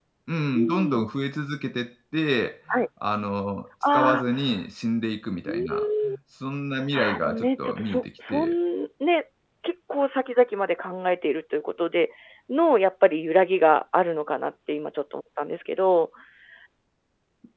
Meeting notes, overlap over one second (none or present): present